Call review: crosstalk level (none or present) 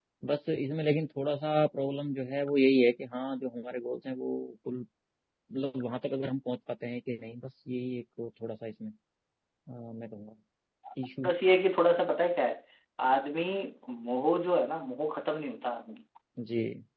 none